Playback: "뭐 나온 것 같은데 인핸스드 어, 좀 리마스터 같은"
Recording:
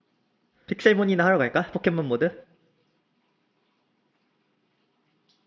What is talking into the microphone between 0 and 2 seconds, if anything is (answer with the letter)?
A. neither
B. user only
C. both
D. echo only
B